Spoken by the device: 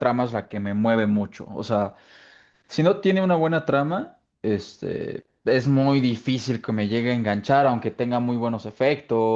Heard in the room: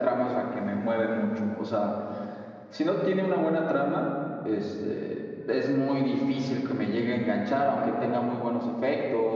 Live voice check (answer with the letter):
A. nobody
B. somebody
A